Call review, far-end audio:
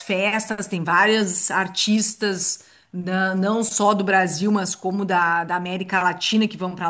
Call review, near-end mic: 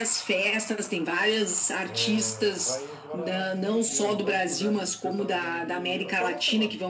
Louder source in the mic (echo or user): echo